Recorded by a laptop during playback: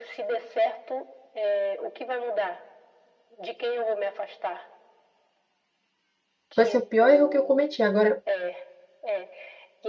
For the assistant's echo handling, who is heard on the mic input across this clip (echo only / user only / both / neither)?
both